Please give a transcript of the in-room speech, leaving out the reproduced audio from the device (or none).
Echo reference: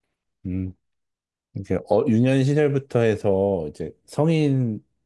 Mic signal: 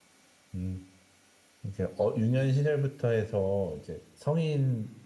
none